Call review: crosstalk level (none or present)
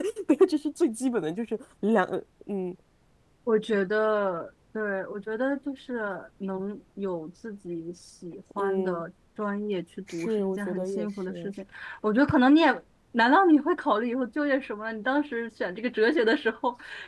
present